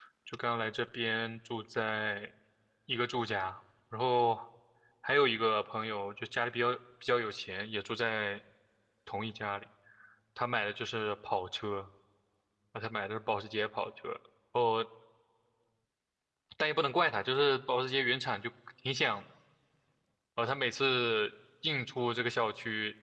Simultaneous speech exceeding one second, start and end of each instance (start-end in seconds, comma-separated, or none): none